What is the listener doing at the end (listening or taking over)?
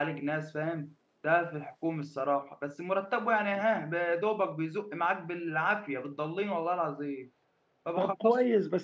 taking over